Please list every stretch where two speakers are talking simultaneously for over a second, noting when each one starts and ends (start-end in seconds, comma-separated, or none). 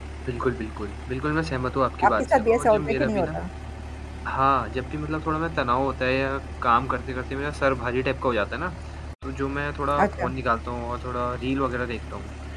2.1-3.3